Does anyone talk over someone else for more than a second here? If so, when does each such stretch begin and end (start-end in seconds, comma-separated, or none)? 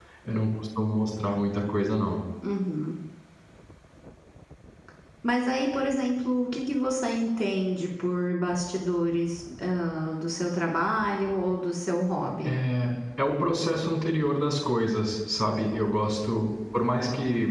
none